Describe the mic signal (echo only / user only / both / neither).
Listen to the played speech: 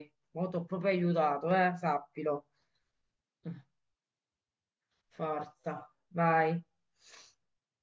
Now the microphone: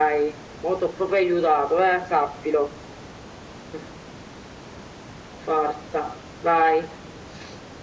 echo only